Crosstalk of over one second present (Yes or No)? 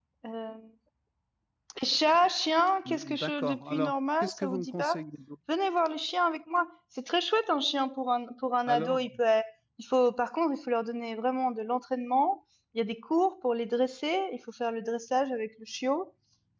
Yes